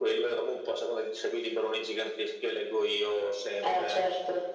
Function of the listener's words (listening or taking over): listening